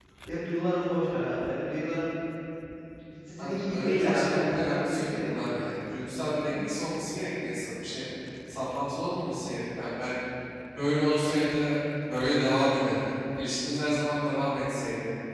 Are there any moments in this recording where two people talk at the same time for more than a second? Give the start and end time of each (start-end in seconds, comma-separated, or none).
3.4-5.5